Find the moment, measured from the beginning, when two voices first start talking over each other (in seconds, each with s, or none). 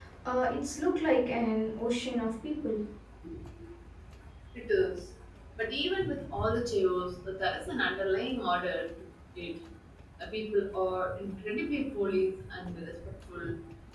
none